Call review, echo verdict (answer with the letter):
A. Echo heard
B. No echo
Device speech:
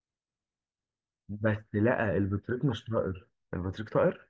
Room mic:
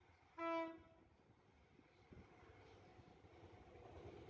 B